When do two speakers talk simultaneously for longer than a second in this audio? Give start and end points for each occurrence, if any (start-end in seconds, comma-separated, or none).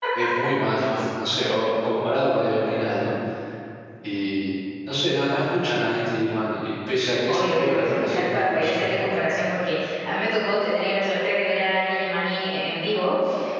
7.3-8.9